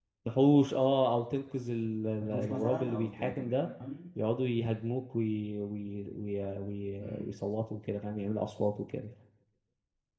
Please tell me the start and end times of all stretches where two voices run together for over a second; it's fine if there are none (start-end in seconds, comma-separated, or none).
2.2-3.7